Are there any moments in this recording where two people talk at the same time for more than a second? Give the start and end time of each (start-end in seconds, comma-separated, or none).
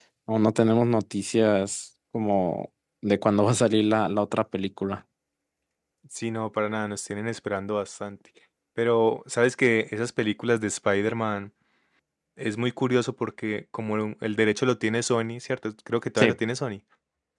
none